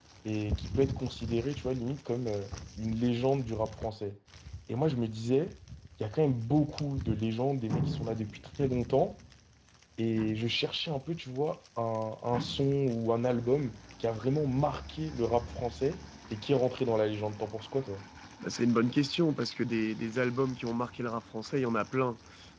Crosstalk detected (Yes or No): No